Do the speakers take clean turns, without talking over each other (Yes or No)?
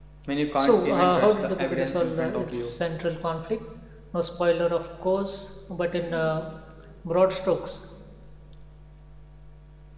No